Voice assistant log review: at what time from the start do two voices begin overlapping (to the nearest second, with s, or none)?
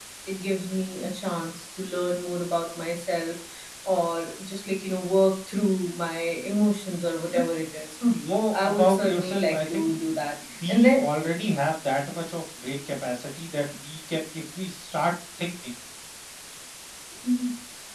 9 s